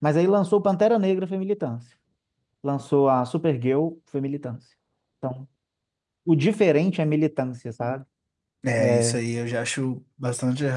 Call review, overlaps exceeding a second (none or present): none